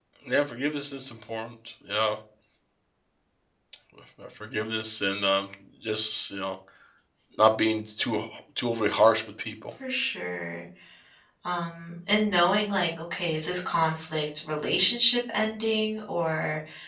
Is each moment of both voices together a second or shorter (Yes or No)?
Yes